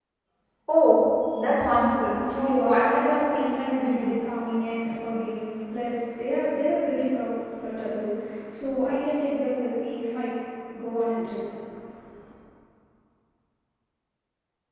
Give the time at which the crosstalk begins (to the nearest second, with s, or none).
2 s